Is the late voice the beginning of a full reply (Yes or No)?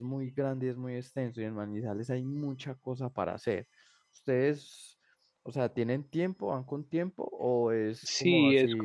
Yes